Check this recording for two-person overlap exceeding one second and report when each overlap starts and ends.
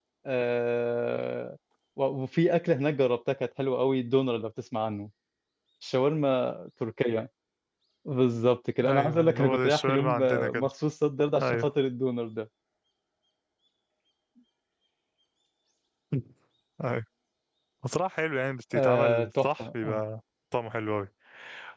8.9-10.7, 18.7-20.0

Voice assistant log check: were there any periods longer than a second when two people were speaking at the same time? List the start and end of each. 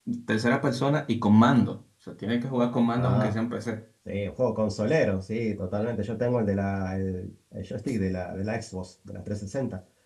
none

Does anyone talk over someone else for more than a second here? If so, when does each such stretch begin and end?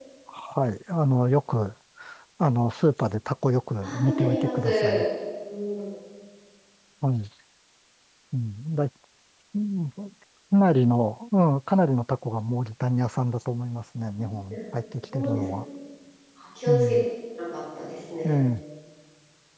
3.8-5.0

